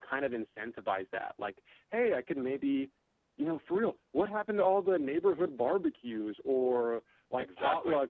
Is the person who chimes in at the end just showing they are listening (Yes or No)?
Yes